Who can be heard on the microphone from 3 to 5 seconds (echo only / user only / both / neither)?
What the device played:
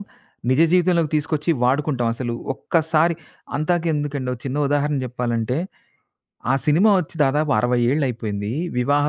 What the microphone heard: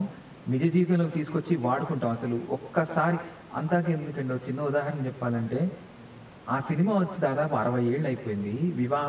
echo only